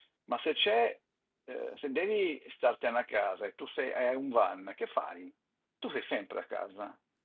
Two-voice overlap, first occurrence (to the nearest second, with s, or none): none